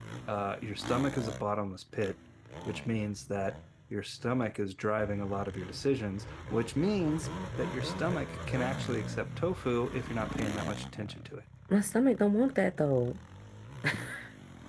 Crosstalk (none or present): none